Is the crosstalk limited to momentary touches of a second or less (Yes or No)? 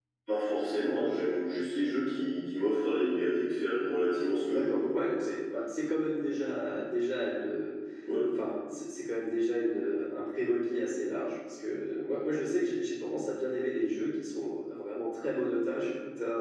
Yes